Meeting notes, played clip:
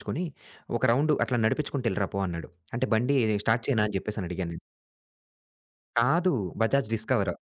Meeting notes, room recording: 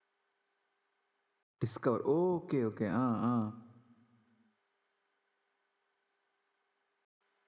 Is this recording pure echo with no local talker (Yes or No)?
No